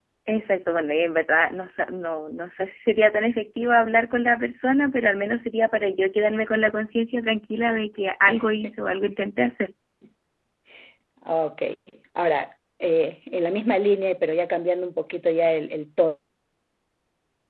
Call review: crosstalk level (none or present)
none